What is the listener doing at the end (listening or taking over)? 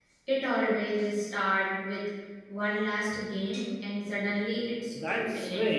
taking over